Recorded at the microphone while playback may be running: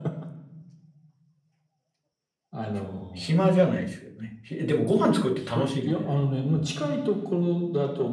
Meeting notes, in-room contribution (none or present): present